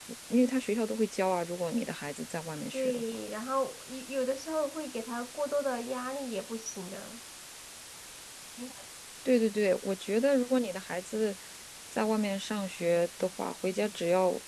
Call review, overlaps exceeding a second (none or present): none